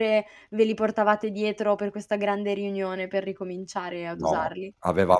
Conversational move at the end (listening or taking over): taking over